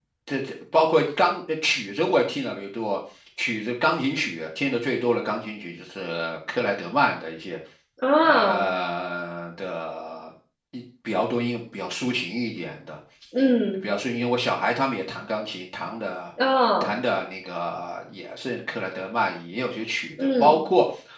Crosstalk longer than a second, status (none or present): none